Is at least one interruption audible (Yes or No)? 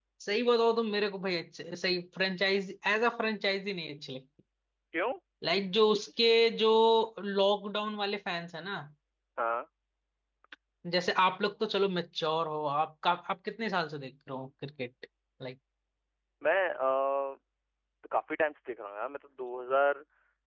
No